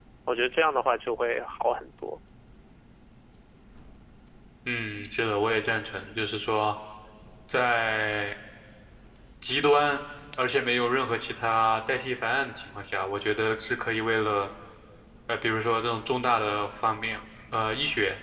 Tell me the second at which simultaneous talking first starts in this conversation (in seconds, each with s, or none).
none